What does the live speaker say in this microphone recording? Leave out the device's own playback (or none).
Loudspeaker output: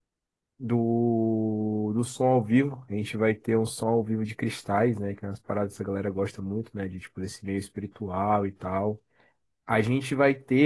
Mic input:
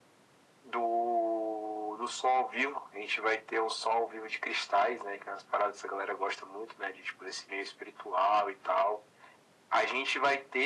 none